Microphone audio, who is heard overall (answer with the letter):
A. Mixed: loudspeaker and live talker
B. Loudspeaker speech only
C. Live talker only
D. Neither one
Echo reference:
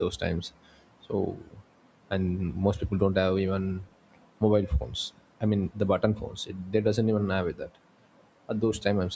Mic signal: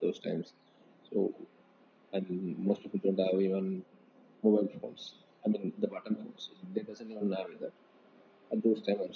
B